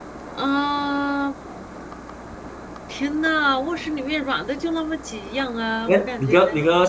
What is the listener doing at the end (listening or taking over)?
taking over